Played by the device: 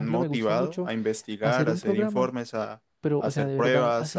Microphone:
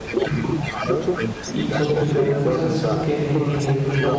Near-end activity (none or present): present